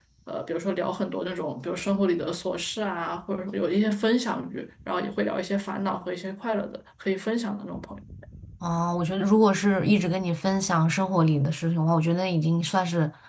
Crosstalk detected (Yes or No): No